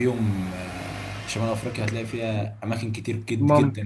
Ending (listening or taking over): listening